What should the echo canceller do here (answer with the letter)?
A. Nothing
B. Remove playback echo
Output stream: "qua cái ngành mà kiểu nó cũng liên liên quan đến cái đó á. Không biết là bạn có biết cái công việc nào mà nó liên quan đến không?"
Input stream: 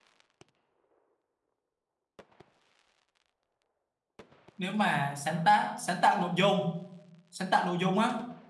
A